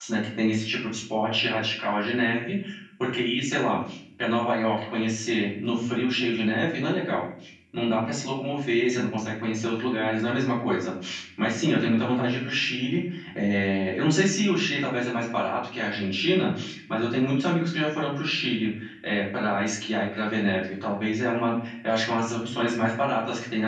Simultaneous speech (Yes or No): No